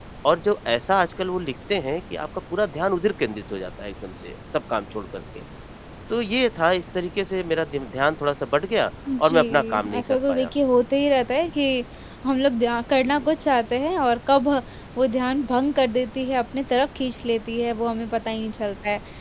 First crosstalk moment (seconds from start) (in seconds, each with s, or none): 9.1 s